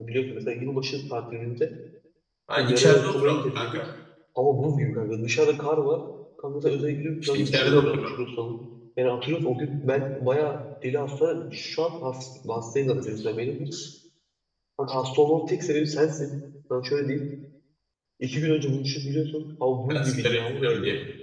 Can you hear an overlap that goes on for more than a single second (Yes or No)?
Yes